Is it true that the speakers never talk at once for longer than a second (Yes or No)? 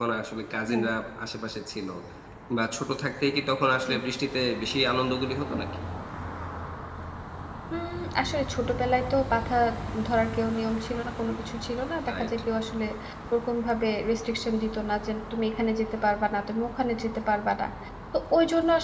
Yes